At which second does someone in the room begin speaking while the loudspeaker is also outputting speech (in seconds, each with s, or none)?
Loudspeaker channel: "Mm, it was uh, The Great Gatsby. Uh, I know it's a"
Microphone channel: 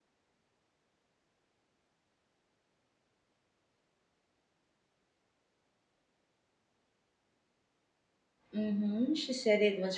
8.5 s